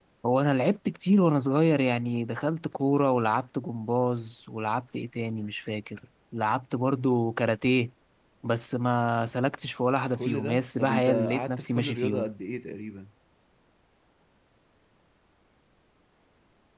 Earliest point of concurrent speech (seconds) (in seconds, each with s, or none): 10.2 s